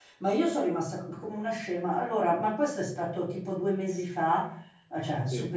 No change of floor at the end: Yes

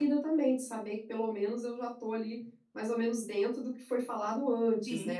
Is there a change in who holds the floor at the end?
Yes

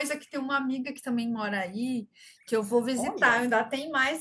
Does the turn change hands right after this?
No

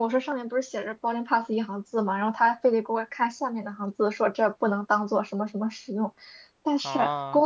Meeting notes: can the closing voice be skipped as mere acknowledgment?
Yes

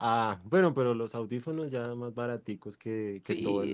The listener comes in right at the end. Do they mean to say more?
Yes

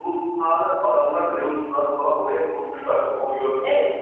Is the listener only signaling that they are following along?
No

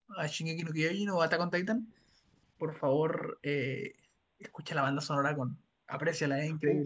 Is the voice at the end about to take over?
Yes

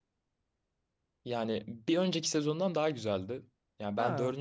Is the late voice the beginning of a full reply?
No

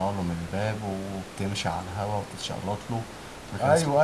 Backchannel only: No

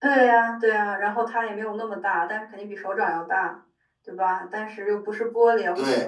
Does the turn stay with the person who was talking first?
Yes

